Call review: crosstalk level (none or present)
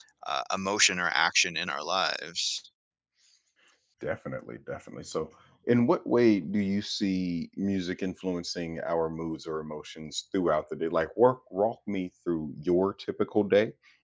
none